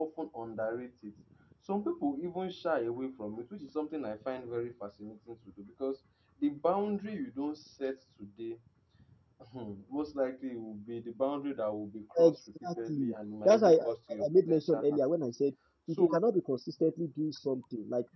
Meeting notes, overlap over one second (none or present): present